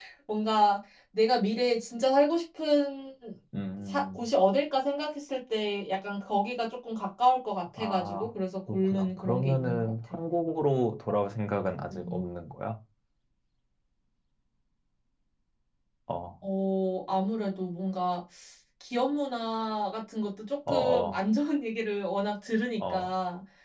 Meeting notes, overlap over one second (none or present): present